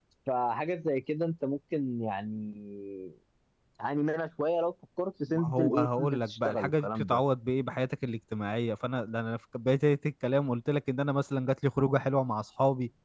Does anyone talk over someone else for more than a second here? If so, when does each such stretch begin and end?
5.3-7.2

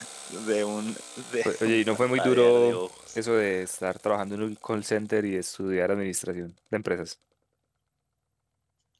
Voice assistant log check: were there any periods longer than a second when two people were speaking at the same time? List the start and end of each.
1.4-2.7

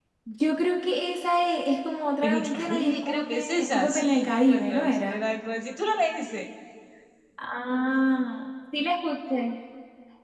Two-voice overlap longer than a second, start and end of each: 2.2-5.2

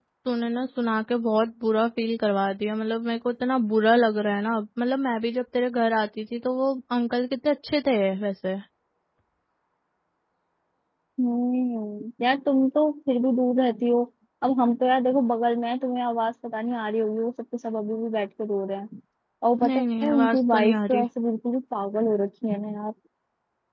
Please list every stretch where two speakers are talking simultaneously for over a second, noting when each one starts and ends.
19.6-21.0

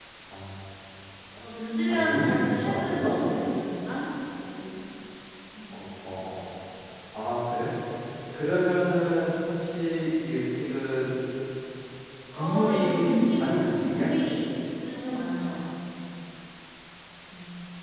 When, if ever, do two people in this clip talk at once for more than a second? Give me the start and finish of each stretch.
1.9-3.2, 12.3-14.1

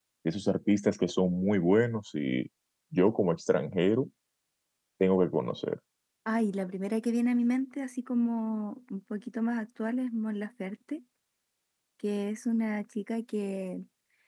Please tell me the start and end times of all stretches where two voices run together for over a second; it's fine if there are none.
none

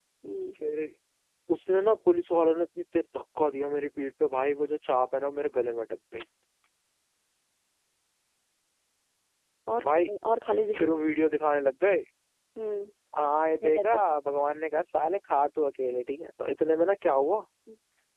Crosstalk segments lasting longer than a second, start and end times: none

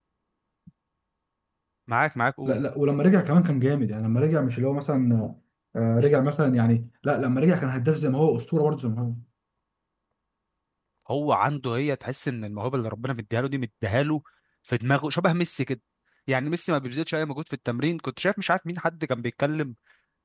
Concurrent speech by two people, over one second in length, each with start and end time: none

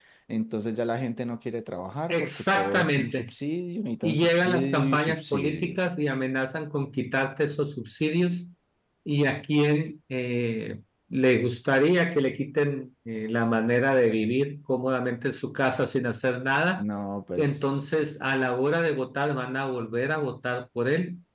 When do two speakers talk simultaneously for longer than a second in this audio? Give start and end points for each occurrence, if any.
2.1-3.3, 4.0-5.8

